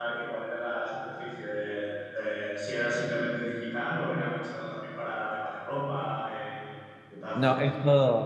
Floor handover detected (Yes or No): Yes